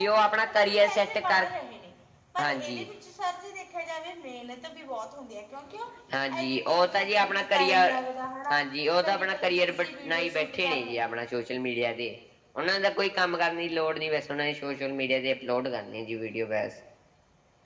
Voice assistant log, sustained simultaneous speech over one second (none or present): present